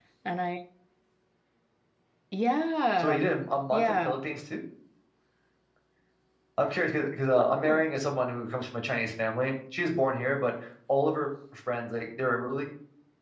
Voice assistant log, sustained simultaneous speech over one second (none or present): none